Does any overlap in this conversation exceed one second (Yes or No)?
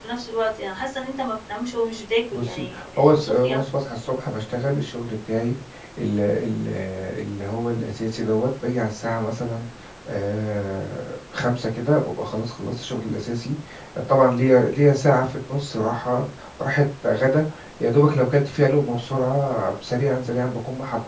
Yes